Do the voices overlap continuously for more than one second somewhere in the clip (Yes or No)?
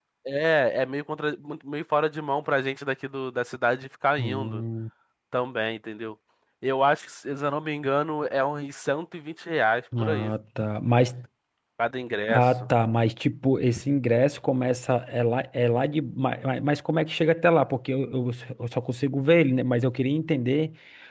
No